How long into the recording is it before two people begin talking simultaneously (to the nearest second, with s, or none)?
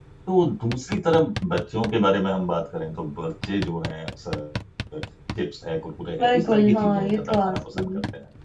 6 s